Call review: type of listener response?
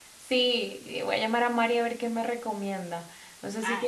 listening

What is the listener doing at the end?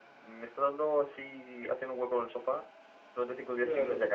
taking over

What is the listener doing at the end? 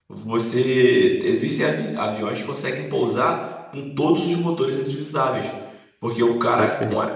listening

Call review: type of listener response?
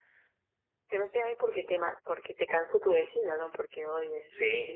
taking over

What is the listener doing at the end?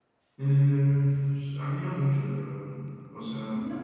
listening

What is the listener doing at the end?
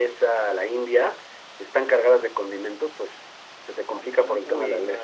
taking over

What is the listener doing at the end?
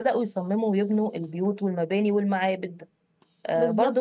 taking over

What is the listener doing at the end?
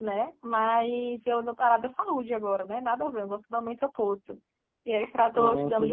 taking over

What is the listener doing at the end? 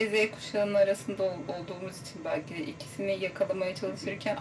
listening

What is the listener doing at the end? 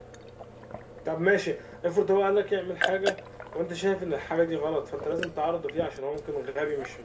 taking over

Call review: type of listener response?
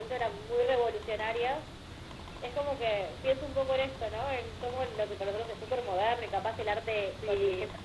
listening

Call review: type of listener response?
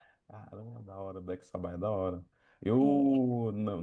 listening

